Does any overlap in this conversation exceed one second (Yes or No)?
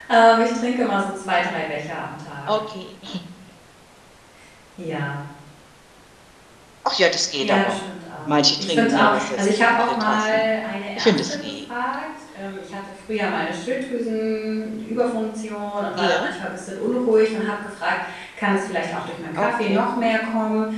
Yes